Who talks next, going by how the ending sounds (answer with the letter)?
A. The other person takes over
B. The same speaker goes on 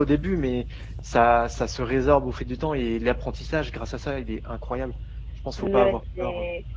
A